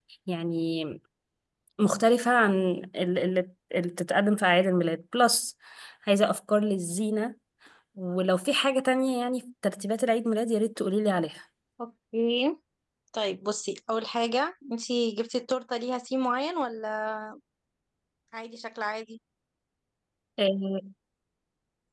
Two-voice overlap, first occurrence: none

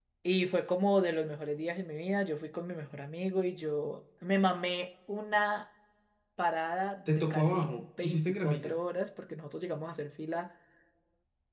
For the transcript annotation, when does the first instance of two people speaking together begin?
7 s

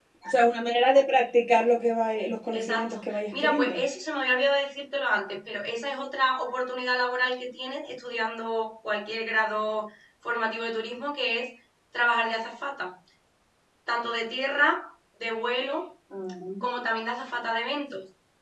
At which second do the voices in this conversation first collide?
3 s

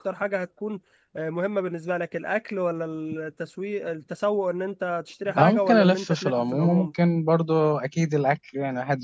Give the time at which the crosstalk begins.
5 s

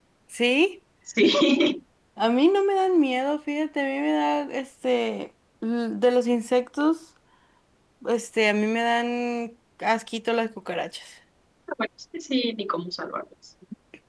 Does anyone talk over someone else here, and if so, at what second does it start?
none

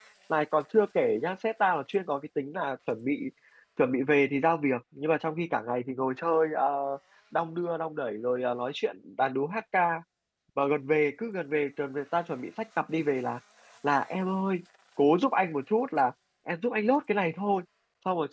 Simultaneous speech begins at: none

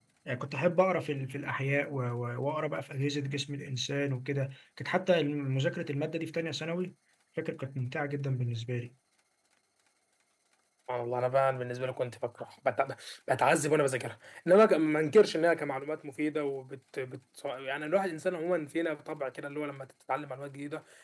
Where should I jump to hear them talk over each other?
none

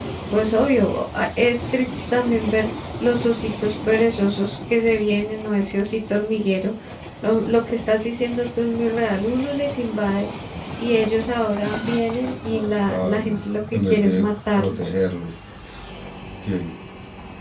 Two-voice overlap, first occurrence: 12 s

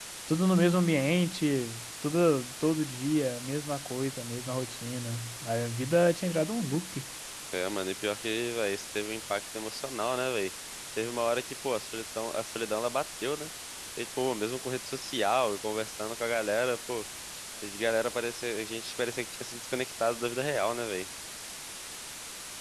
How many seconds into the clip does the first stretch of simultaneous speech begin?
none

